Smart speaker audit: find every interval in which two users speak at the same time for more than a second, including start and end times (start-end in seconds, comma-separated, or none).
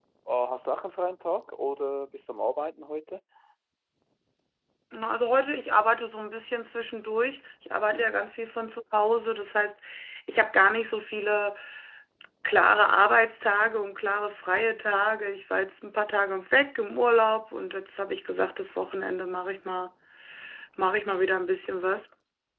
none